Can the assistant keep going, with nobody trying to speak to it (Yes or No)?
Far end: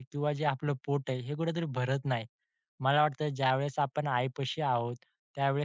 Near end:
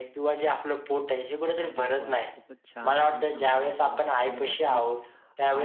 No